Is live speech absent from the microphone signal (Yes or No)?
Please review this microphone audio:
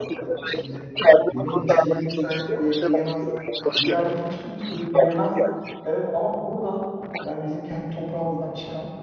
No